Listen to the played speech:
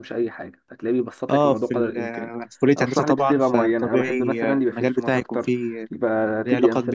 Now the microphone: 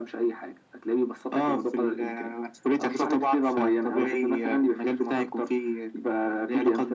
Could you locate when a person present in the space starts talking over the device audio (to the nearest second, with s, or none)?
none